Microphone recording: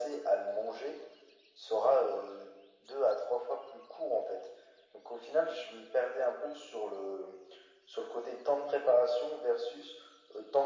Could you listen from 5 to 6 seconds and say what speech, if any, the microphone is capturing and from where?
echo only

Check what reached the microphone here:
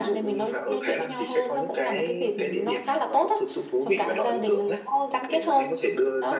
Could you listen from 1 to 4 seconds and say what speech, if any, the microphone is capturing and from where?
echo only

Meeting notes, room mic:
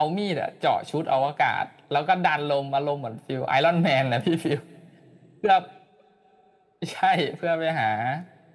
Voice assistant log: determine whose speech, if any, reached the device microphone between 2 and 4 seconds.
echo only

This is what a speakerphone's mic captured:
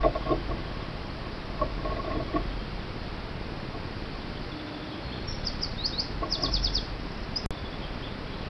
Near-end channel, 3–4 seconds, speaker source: neither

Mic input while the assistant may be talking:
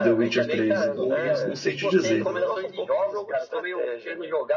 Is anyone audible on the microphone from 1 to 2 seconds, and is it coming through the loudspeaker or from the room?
both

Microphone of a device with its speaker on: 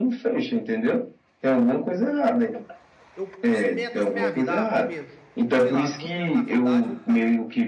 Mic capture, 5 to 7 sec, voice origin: both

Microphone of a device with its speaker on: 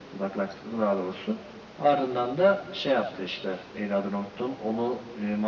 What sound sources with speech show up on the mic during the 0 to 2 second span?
echo only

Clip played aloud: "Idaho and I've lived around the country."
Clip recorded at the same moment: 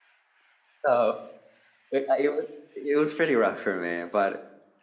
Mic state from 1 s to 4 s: user only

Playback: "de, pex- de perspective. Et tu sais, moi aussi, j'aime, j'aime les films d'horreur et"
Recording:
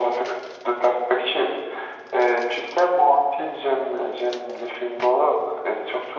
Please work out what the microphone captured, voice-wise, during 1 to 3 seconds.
echo only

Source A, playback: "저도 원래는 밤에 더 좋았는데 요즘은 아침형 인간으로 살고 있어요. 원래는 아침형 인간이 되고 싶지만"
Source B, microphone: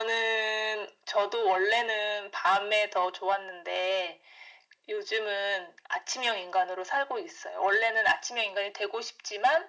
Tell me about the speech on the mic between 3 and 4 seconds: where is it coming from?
echo only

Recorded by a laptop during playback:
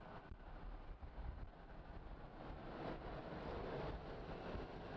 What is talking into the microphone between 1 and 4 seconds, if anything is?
neither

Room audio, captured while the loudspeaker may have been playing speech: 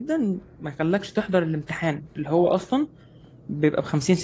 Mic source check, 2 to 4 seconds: user only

